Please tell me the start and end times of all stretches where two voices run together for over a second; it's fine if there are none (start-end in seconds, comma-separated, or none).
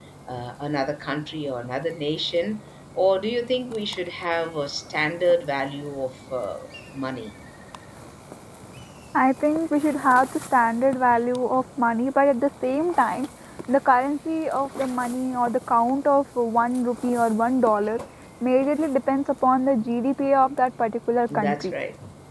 none